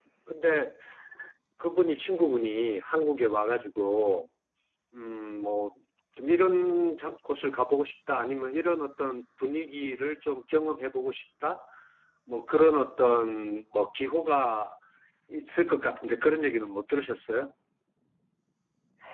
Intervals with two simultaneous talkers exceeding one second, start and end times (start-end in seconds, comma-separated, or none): none